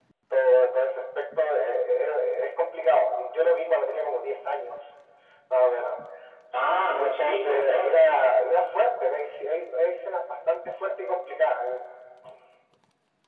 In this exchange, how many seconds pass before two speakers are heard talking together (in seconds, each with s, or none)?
6.9 s